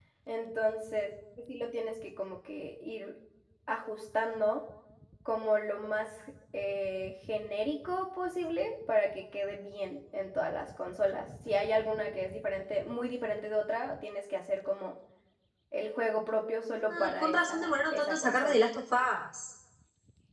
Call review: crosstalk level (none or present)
present